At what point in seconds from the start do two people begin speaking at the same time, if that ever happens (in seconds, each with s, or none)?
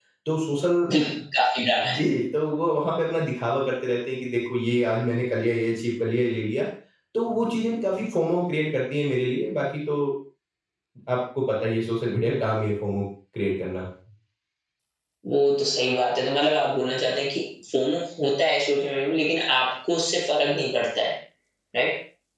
none